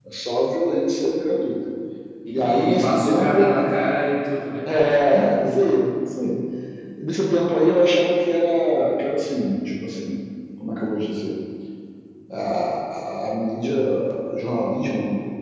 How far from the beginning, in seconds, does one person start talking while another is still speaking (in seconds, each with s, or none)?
2.3 s